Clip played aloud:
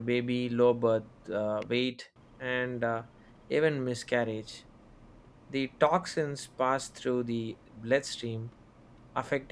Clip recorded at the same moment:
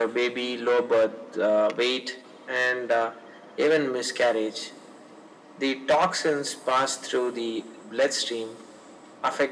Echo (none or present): present